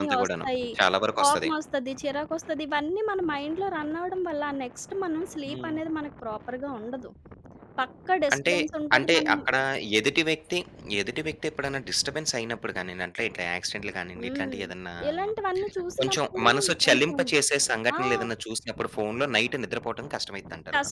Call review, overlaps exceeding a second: present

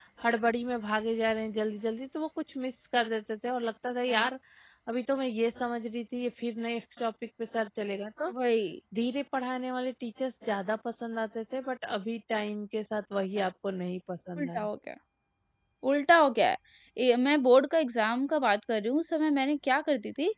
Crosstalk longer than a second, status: none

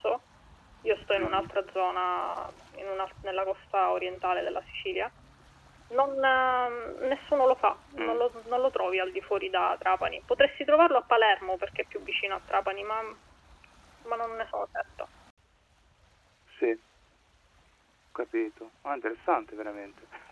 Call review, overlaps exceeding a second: none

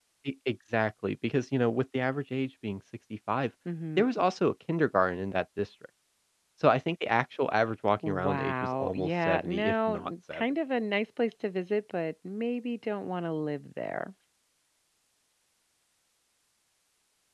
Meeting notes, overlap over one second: present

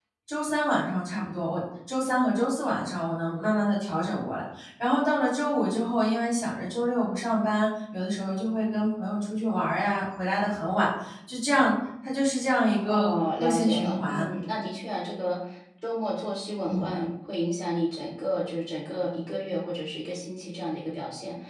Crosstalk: present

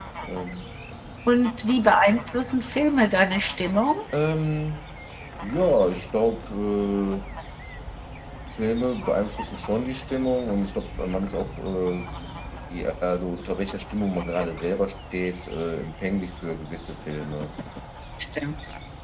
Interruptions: none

